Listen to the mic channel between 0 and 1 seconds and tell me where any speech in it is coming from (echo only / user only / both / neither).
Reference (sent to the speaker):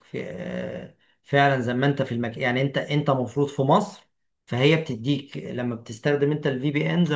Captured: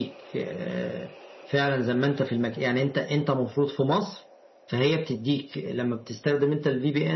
echo only